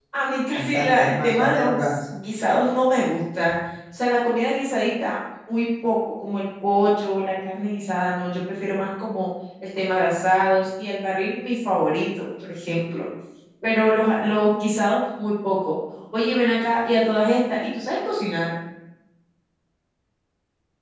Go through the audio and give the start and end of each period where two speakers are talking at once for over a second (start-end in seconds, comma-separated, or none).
0.5-2.0